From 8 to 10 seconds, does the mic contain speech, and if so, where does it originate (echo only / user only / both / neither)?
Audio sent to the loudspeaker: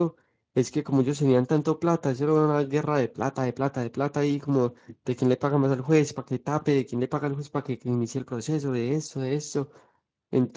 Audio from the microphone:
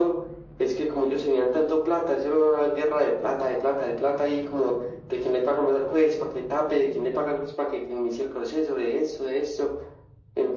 echo only